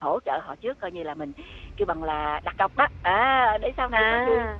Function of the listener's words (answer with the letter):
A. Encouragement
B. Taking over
A